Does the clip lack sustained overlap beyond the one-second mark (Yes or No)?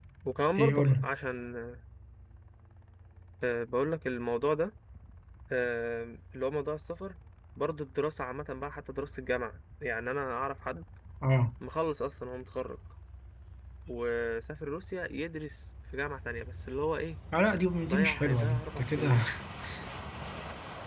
No